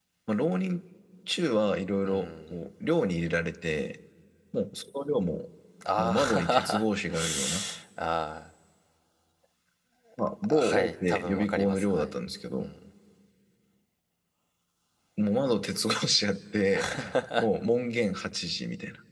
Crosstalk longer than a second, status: present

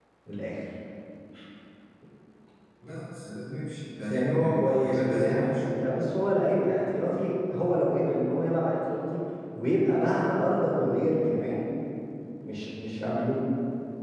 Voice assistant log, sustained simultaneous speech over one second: present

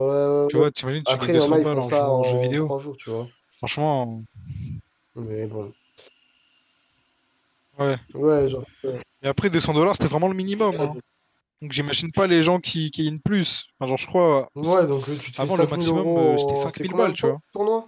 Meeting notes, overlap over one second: present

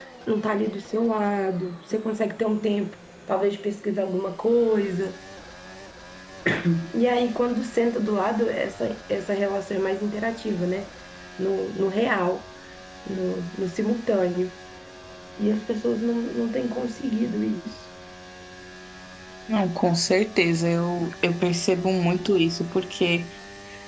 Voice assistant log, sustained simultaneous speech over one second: none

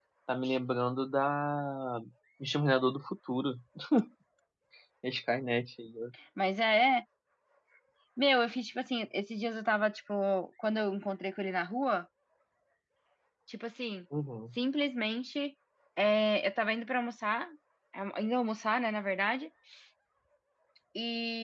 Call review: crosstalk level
none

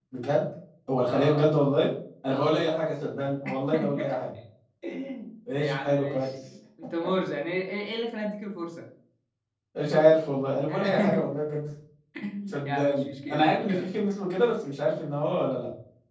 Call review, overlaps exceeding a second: present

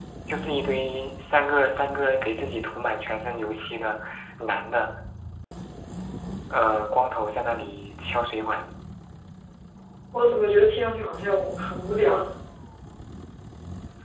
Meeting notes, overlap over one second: none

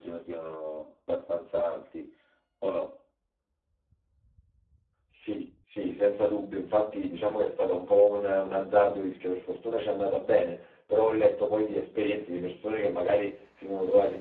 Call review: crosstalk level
none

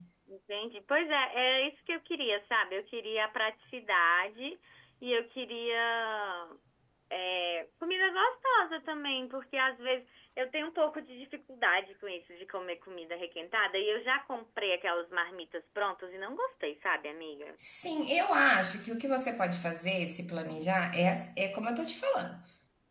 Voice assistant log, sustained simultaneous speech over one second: none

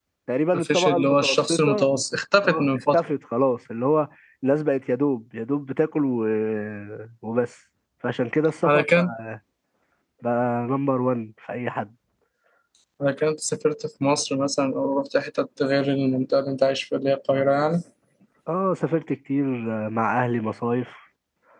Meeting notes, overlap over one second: present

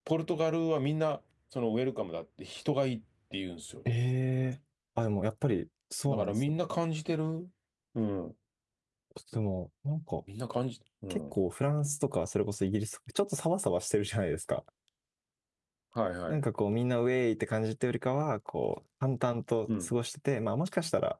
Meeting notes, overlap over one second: none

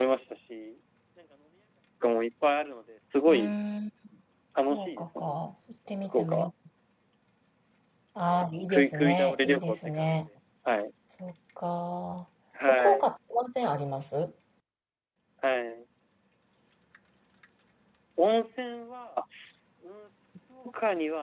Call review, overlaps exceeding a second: present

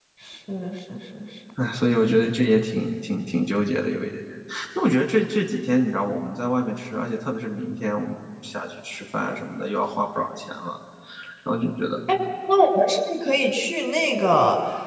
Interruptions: none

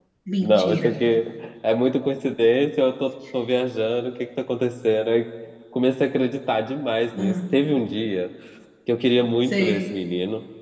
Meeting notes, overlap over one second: none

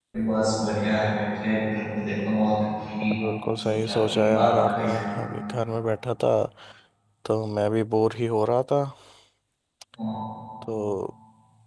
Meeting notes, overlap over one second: present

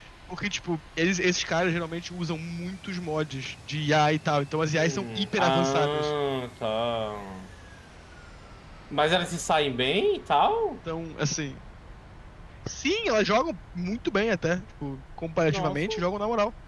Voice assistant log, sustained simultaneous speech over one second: present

